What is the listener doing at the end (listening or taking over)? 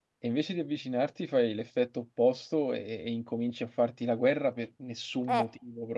taking over